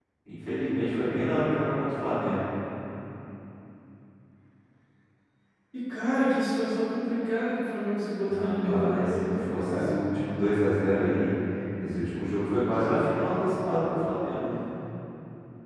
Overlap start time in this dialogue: 8.2 s

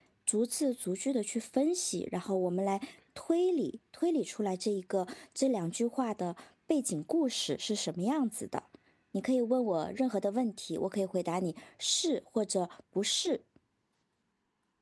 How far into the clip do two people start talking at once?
none

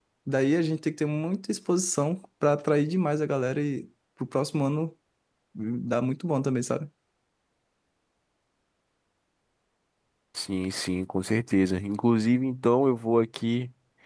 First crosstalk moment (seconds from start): none

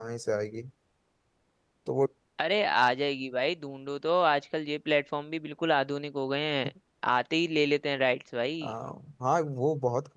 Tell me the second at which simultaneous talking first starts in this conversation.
none

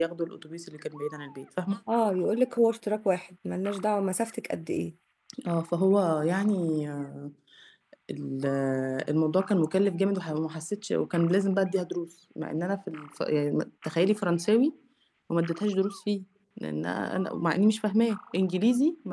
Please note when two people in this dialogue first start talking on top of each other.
none

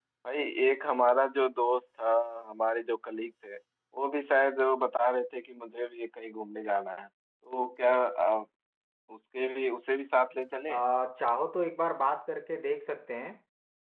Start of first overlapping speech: none

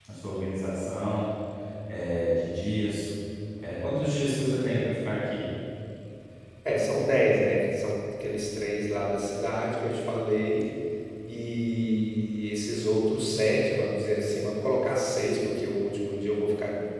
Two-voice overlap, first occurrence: none

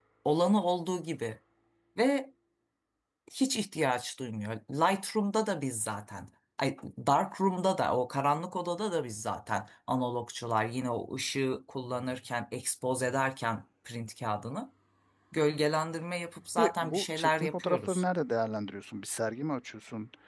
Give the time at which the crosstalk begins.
16.6 s

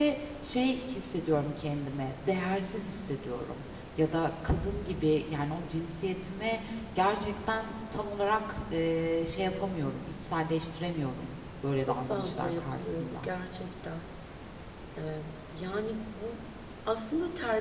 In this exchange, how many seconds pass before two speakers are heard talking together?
11.8 s

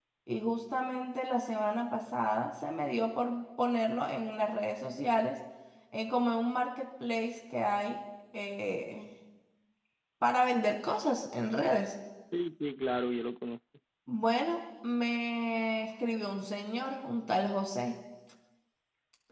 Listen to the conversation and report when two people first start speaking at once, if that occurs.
none

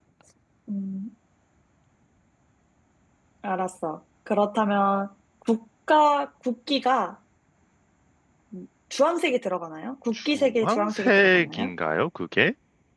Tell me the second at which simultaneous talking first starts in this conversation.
10.2 s

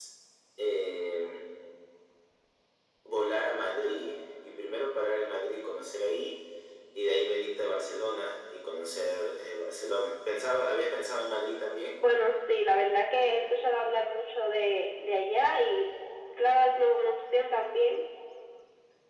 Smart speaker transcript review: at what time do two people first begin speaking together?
none

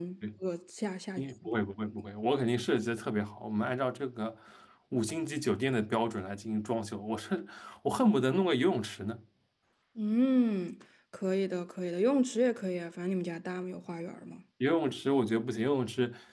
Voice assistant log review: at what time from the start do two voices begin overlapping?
none

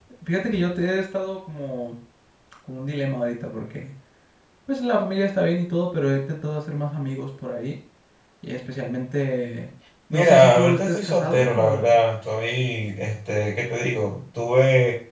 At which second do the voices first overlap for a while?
10.1 s

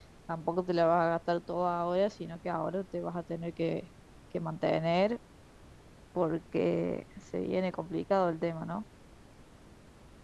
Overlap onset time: none

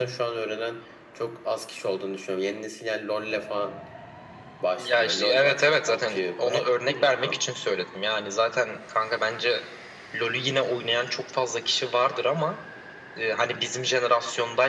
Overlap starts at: 4.8 s

